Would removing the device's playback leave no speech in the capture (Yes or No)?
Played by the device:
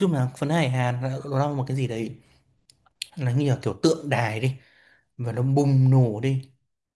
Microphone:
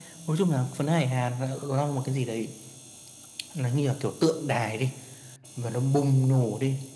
Yes